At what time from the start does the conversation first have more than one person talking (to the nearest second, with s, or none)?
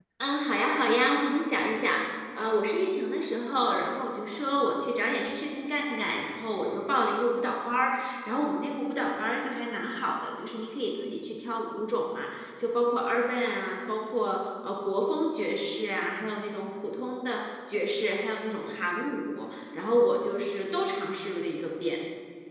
none